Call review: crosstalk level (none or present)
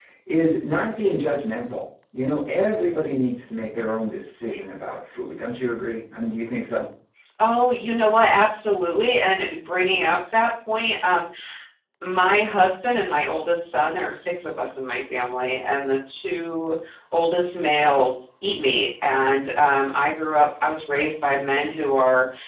none